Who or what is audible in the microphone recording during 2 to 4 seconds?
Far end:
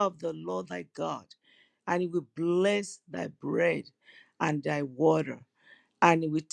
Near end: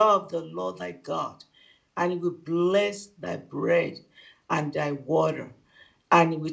echo only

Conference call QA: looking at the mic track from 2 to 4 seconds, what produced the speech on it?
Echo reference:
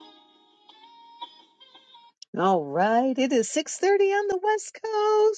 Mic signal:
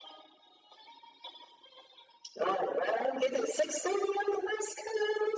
echo only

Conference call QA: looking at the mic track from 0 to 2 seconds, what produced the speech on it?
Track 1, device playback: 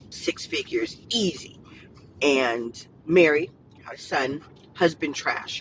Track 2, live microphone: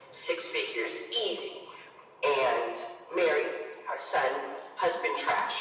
echo only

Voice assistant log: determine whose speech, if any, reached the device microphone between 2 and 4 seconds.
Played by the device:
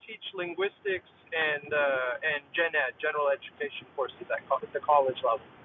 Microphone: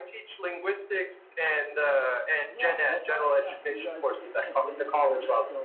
both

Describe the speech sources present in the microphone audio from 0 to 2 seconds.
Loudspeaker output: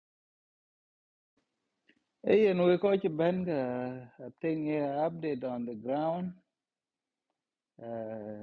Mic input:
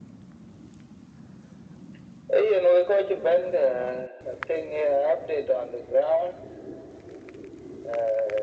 neither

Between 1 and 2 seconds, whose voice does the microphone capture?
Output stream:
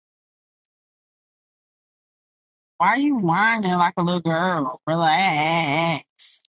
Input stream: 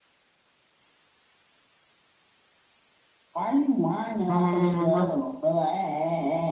neither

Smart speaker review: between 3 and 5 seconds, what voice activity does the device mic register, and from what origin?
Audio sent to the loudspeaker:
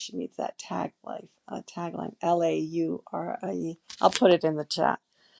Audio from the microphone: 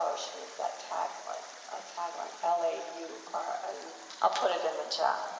echo only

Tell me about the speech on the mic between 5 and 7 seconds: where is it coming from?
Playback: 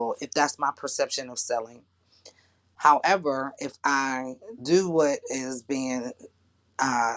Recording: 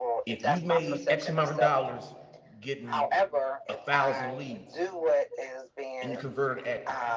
both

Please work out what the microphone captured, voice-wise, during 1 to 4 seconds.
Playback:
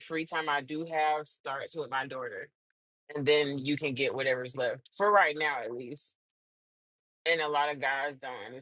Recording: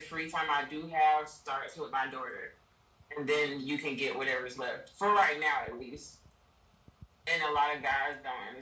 echo only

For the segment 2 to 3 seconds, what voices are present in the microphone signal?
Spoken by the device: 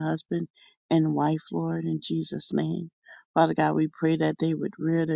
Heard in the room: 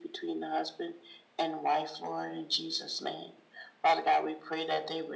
echo only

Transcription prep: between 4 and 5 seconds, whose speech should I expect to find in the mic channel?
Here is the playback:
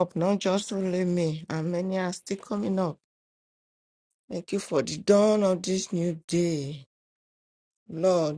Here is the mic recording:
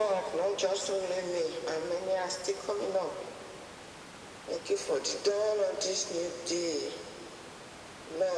echo only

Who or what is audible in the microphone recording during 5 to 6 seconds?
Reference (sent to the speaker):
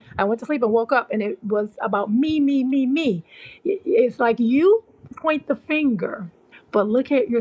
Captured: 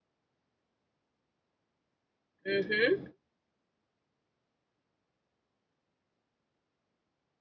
neither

